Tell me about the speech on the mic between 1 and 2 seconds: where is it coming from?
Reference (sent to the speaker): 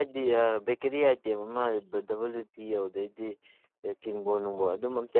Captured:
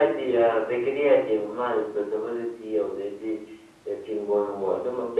echo only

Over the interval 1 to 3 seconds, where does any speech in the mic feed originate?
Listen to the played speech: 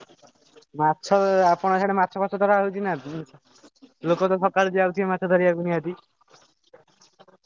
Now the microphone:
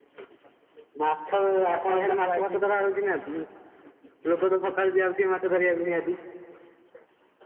both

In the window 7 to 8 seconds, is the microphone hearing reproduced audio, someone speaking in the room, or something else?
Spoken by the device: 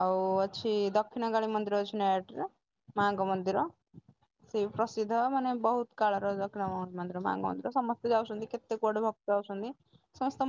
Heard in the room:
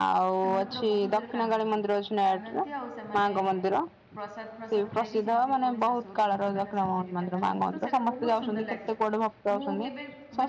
both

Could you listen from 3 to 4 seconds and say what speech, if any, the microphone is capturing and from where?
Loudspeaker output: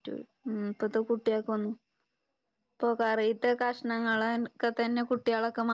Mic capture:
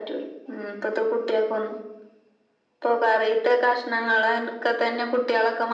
echo only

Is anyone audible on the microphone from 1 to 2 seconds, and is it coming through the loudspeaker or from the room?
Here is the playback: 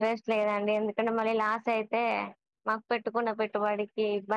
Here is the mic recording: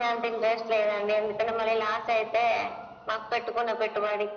echo only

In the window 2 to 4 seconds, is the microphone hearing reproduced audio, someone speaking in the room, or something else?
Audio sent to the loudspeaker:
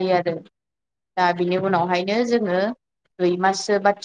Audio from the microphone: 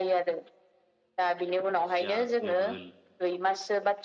both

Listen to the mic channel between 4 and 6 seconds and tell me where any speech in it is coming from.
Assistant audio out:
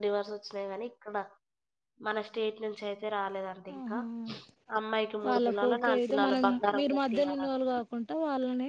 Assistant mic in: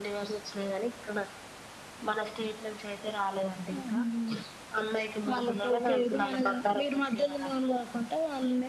echo only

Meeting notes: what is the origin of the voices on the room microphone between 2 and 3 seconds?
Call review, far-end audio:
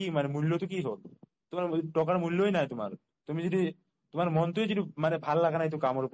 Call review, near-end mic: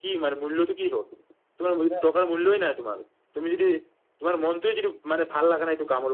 both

